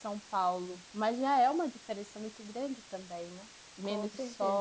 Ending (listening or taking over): listening